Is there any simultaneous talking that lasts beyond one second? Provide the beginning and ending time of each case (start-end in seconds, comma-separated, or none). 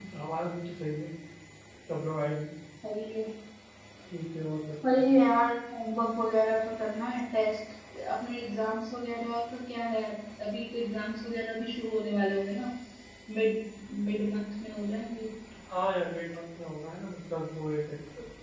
none